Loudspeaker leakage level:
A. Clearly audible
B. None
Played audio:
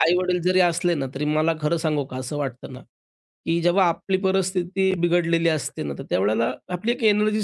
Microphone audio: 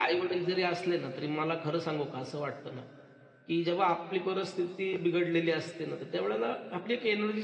A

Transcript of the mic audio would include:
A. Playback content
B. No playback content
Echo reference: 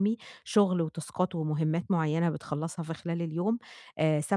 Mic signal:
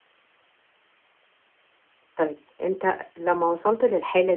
B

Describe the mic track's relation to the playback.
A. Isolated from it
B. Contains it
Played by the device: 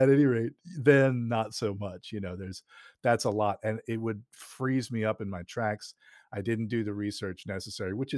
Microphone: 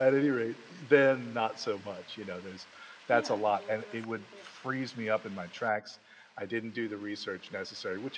B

